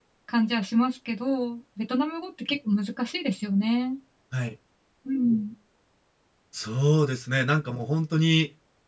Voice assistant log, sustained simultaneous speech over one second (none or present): none